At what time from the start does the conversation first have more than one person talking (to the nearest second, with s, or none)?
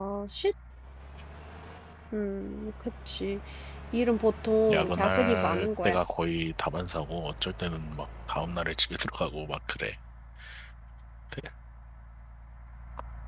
5 s